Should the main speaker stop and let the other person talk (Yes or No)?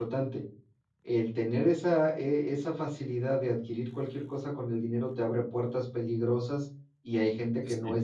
No